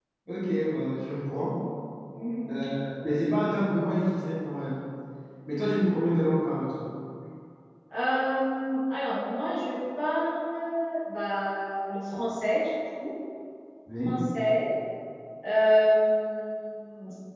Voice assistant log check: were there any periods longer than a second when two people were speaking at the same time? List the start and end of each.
none

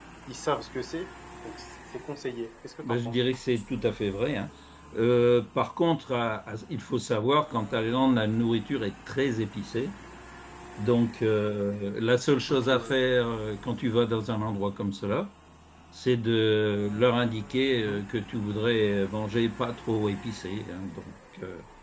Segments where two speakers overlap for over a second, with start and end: none

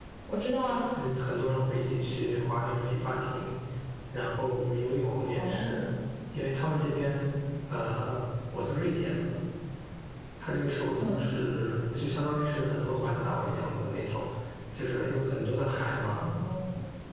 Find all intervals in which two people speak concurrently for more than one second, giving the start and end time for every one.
none

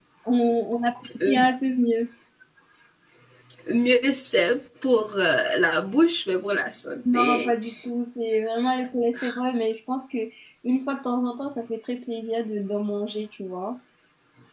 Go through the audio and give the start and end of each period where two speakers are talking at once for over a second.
none

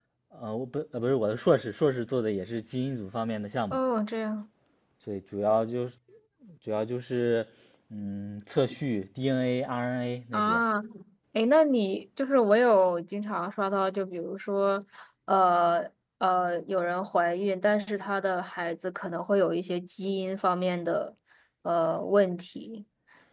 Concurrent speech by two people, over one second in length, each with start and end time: none

